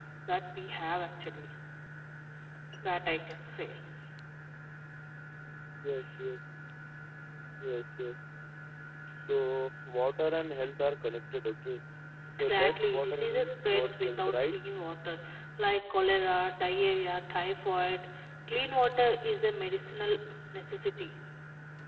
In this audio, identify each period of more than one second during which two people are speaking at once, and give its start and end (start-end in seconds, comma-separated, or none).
12.4-14.5